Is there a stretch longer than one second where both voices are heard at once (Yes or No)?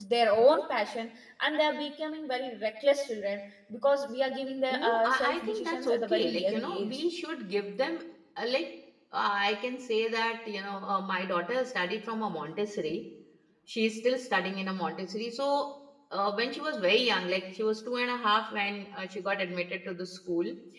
Yes